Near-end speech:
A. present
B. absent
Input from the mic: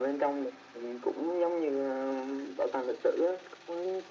B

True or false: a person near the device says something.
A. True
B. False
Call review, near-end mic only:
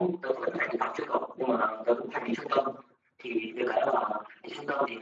B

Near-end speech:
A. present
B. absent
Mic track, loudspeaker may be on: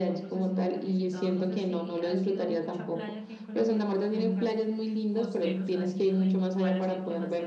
A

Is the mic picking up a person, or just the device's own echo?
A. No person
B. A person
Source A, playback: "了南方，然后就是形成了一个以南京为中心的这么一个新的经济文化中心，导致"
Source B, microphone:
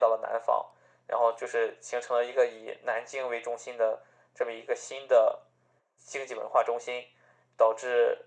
A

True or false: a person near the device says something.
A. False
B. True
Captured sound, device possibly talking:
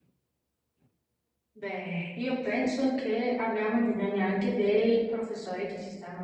B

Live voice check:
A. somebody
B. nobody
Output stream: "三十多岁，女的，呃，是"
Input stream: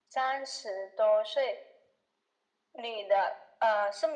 B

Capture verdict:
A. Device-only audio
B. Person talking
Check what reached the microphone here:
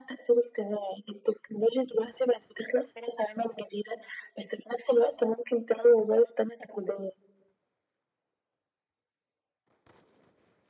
A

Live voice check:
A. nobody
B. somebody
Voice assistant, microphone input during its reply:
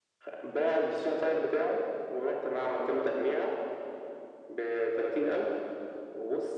A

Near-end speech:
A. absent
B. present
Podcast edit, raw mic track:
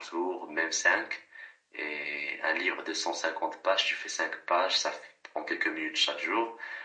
A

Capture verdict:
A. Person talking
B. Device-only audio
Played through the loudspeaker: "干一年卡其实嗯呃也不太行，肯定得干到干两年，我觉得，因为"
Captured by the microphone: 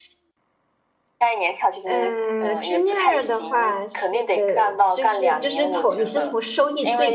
A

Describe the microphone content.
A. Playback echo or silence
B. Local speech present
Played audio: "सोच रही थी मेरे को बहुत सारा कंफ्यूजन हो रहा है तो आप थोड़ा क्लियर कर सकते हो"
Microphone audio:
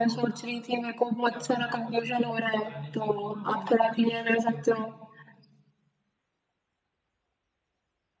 B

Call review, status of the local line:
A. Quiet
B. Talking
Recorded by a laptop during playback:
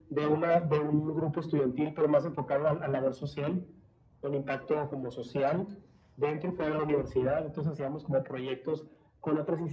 A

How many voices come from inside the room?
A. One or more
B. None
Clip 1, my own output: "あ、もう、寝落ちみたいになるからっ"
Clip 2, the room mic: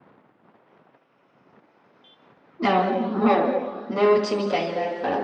B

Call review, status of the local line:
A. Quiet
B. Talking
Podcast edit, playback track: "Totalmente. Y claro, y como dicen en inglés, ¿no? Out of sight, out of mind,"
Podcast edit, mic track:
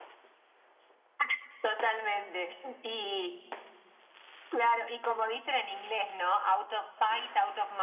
A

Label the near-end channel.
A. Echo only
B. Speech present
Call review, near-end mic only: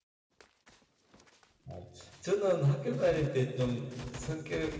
B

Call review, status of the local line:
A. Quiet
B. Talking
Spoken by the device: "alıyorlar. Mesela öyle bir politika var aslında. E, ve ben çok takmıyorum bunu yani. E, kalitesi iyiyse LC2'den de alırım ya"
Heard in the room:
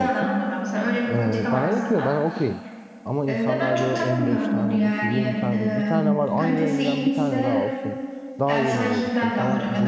B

